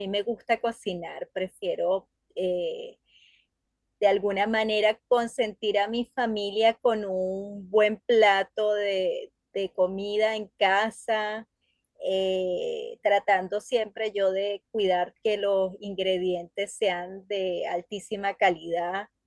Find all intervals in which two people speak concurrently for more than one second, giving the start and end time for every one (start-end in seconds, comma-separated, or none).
none